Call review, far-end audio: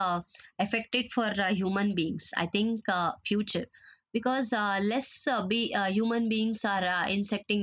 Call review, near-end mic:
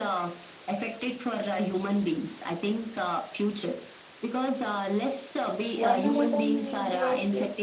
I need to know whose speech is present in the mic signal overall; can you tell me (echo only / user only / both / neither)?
both